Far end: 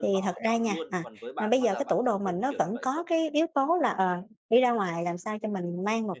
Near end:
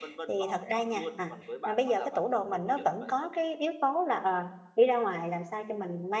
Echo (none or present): present